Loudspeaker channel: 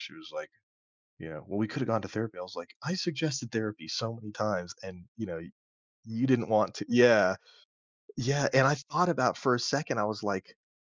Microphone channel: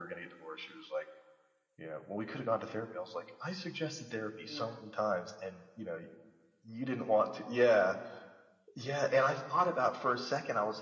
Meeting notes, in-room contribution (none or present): present